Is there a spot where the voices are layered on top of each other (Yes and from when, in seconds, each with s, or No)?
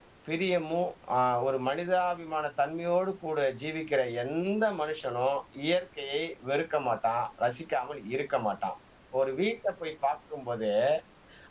No